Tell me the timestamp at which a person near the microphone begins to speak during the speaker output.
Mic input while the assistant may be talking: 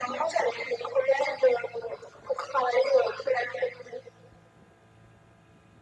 none

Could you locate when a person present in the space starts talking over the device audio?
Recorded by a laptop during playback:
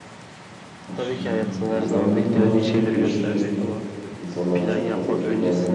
0.9 s

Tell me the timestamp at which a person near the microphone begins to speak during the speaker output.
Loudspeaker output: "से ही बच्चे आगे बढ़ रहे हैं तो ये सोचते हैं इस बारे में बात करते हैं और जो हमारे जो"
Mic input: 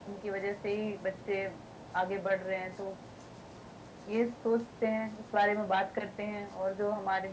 none

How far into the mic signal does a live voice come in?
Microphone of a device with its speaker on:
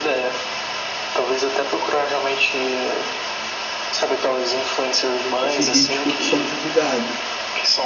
5.4 s

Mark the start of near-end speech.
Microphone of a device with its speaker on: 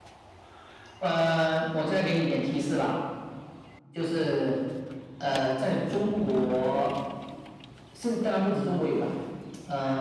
none

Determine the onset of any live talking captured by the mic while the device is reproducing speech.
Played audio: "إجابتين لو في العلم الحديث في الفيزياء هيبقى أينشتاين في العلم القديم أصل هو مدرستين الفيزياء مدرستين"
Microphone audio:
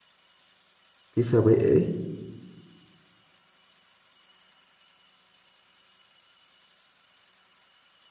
1.1 s

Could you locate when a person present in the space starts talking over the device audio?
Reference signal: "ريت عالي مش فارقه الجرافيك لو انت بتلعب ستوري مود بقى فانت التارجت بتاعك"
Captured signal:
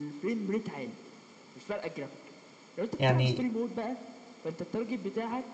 3.0 s

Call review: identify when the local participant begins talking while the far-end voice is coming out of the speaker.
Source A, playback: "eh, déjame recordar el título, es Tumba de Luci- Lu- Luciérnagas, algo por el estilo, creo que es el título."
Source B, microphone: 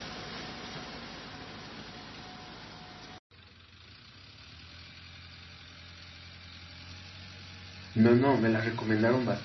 7.9 s

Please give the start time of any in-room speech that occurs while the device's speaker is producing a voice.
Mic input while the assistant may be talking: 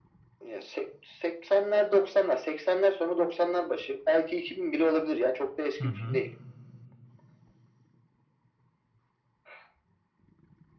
5.8 s

